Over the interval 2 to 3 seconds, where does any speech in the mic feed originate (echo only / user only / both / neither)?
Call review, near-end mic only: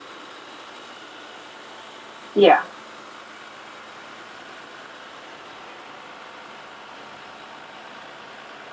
user only